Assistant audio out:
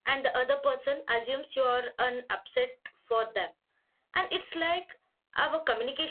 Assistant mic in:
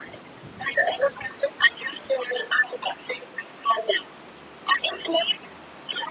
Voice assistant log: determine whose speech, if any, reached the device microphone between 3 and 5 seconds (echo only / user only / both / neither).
echo only